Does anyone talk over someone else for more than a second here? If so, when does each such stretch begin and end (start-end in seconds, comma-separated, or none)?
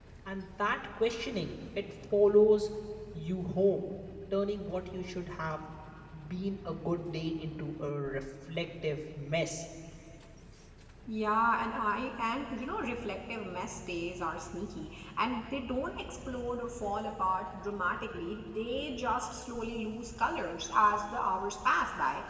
none